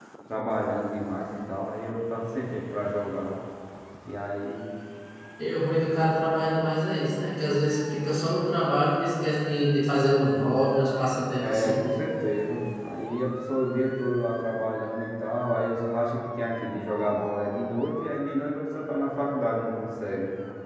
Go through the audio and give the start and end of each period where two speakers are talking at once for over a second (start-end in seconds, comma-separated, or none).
none